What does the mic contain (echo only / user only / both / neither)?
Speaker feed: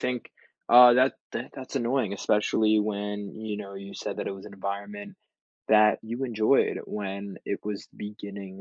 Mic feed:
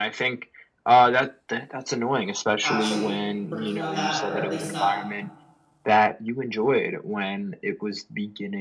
both